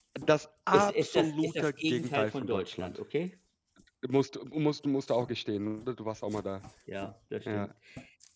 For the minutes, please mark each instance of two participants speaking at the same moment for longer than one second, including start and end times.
0.7-3.0

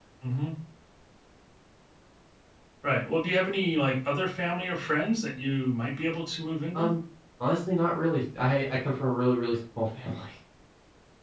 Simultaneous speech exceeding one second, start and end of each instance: none

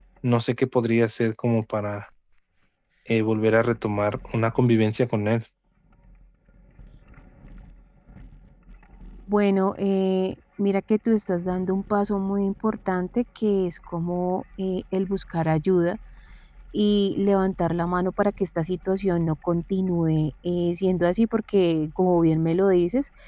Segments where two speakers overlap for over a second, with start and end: none

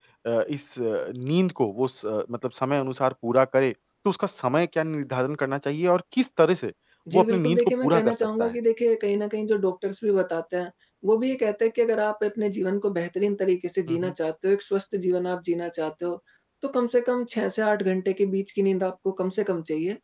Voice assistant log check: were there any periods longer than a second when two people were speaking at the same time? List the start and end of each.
7.1-8.5

